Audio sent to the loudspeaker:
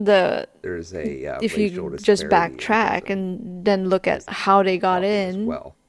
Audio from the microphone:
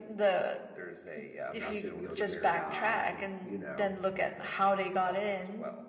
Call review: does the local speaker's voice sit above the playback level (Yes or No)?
No